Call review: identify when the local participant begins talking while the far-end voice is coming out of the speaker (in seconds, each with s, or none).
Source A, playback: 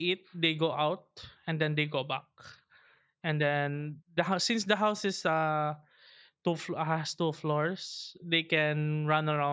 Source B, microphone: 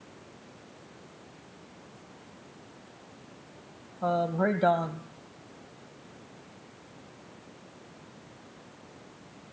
4.0 s